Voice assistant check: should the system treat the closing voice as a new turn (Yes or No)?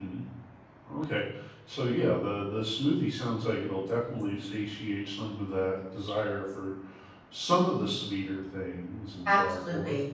Yes